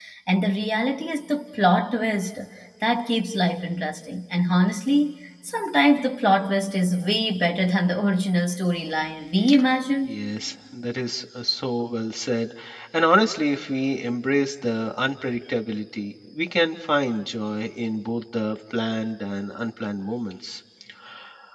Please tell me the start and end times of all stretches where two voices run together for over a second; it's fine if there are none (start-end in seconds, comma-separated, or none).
none